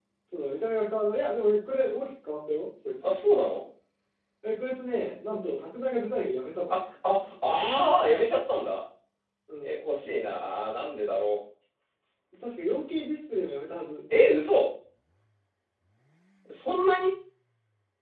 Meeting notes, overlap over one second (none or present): none